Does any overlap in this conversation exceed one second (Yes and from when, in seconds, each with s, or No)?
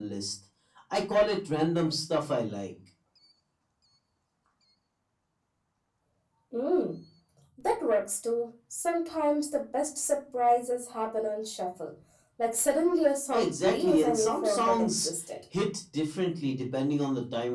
Yes, from 13.3 s